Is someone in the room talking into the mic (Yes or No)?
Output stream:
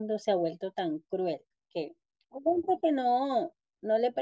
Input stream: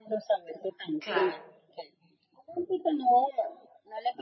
Yes